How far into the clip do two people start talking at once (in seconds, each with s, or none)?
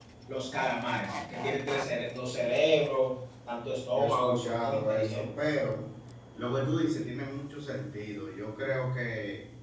3.9 s